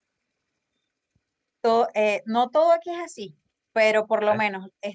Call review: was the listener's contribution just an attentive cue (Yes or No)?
Yes